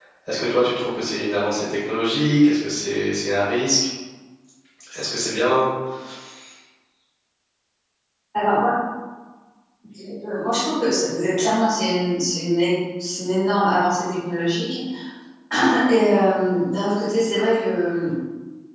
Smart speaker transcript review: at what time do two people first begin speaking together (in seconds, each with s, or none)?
none